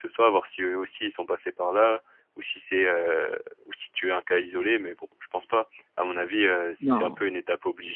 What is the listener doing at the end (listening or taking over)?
listening